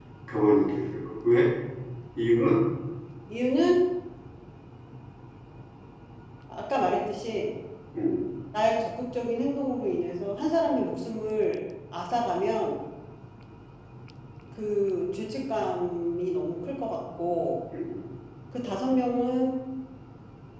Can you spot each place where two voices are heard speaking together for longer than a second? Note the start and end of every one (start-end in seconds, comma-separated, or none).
none